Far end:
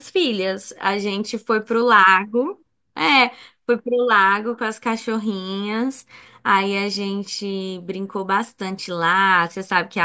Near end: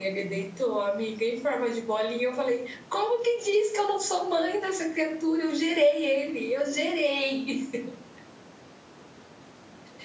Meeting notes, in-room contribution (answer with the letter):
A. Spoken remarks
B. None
A